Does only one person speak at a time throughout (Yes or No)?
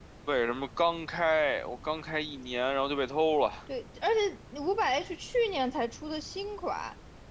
Yes